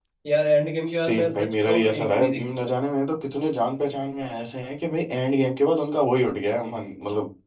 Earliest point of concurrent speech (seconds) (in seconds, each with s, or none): 0.9 s